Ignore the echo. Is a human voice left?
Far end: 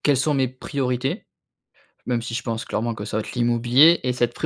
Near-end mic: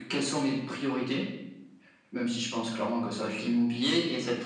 No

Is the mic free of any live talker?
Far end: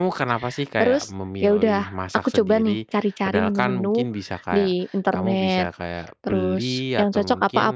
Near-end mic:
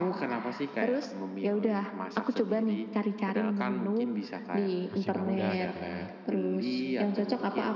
No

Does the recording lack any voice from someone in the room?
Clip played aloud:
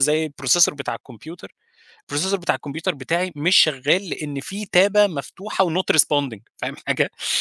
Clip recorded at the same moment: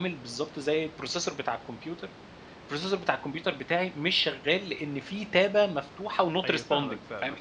No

